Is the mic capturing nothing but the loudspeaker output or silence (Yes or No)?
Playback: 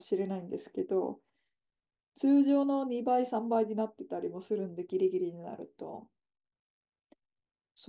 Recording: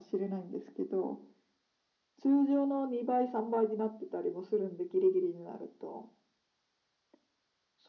Yes